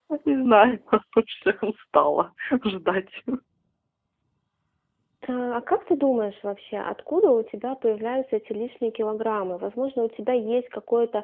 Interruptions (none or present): none